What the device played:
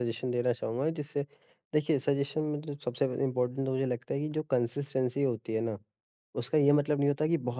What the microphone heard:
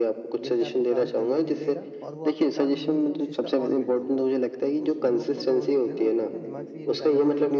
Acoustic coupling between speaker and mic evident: Yes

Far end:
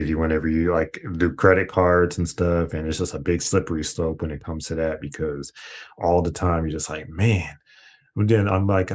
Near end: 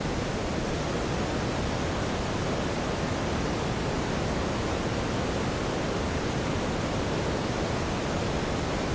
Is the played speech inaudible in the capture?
Yes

